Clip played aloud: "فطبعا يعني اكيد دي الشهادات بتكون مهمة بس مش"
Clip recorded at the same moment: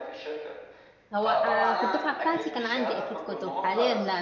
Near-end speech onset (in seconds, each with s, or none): 1.1 s